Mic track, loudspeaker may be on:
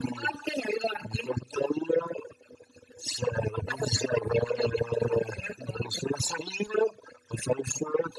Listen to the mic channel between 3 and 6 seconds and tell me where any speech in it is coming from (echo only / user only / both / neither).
echo only